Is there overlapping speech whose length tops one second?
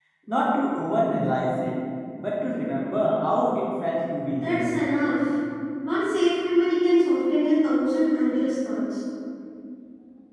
No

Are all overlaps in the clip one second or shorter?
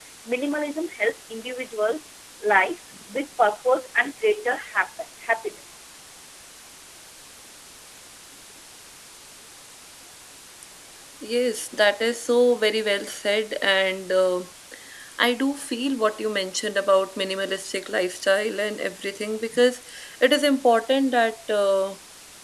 Yes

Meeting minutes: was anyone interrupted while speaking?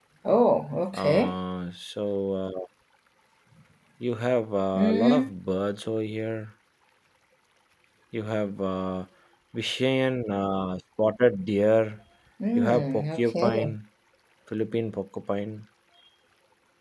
Yes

